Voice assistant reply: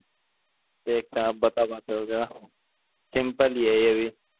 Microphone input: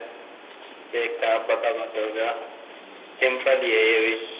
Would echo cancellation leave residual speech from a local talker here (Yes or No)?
No